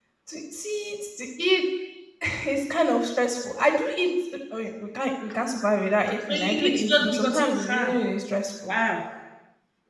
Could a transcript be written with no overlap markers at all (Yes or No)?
No